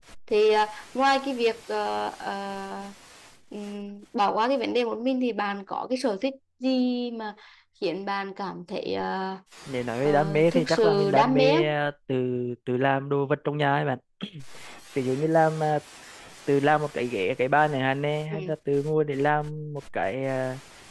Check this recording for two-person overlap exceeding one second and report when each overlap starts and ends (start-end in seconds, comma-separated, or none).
10.0-11.7